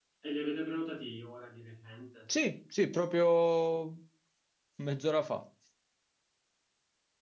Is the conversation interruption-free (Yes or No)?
Yes